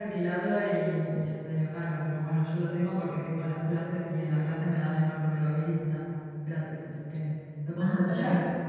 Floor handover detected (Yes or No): Yes